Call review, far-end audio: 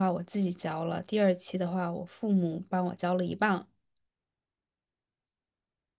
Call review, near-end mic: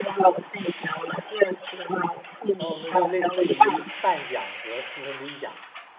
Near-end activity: present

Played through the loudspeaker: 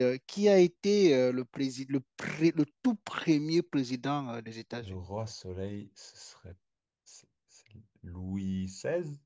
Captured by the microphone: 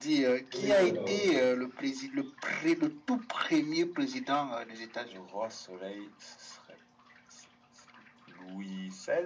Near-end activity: present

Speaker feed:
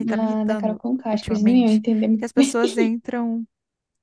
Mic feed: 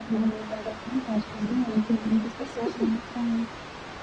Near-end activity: none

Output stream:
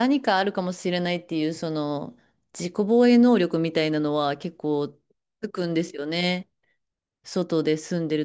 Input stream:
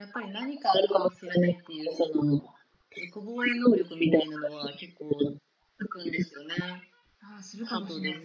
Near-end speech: present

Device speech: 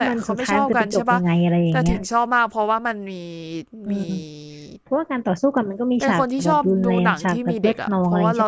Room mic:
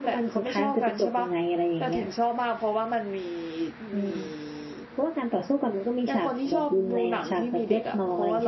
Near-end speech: none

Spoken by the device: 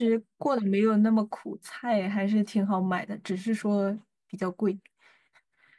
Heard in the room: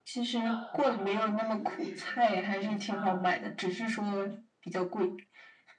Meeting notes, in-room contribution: present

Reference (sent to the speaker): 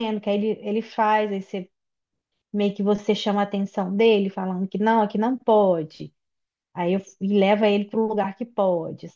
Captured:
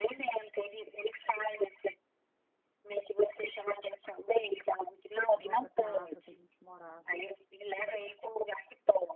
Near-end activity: present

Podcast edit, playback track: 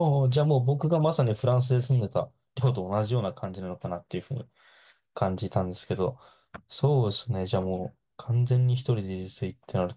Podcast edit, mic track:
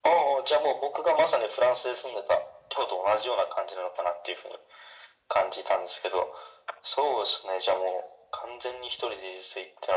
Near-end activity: none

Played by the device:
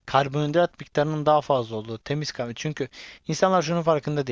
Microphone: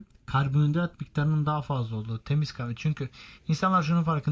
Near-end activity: none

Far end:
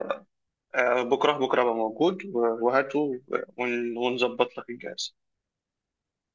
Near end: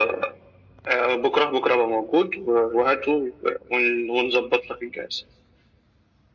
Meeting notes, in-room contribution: none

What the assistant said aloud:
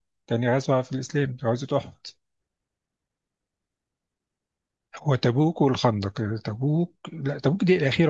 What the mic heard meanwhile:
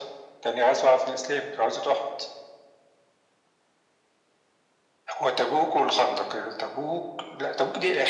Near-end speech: none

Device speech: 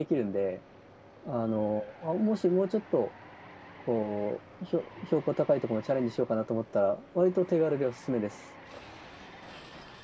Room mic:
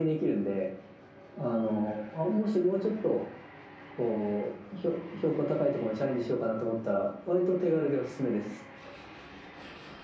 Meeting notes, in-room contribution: none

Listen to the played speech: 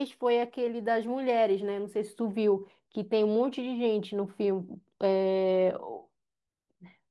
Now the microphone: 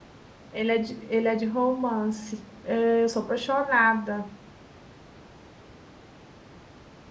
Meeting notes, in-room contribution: present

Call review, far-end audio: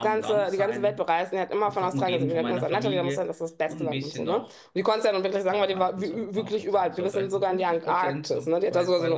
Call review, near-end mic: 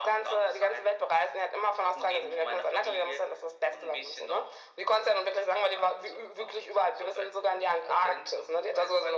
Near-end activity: none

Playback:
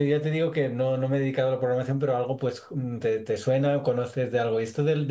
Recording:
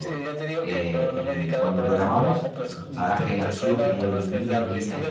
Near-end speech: present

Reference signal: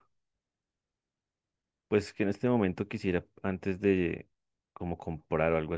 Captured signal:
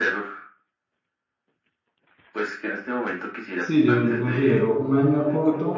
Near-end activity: present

